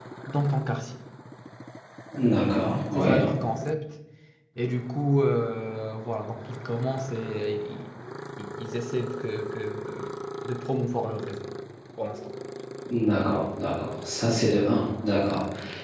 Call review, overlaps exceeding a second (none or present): none